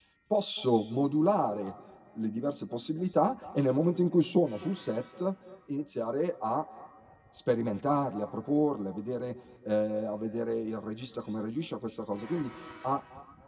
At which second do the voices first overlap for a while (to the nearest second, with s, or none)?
none